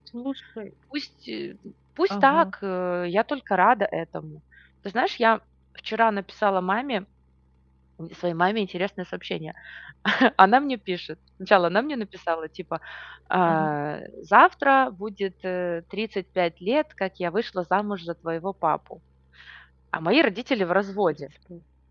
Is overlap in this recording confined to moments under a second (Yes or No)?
Yes